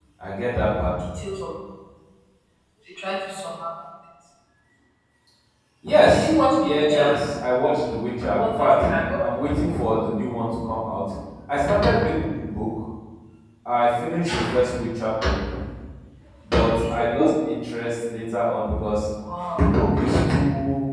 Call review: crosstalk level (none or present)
present